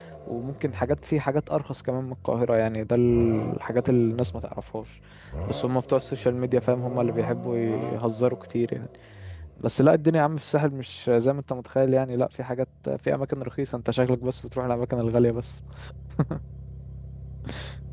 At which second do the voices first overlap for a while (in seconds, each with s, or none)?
none